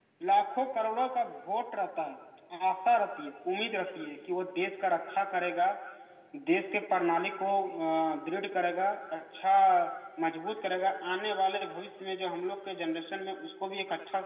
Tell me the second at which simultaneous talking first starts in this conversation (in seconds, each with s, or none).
none